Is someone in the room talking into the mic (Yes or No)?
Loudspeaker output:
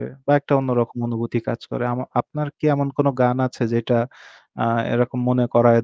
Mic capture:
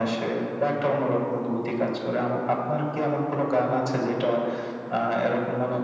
No